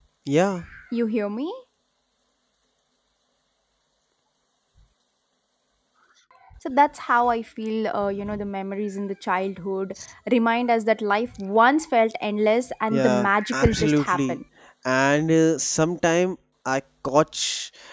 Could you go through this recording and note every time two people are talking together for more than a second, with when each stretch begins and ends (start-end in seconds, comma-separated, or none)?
12.9-14.4